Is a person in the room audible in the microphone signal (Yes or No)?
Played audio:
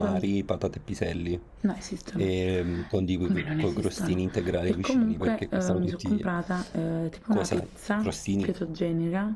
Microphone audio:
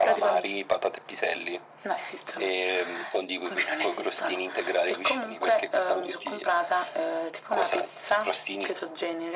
No